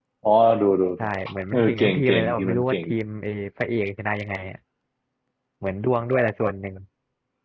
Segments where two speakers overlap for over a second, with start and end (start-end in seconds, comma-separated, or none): 1.5-2.8